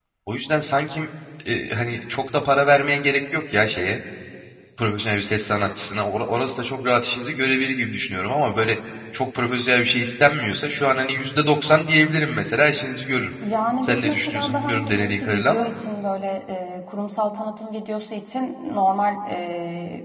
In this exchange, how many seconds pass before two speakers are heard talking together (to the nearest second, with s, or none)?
14 s